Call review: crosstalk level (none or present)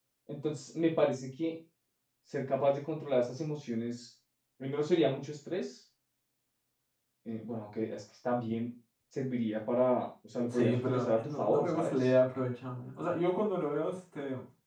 present